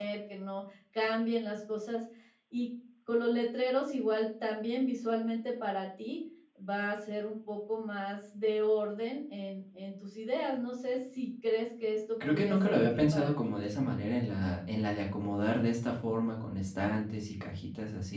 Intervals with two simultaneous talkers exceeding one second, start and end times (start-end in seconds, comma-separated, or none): 12.2-13.5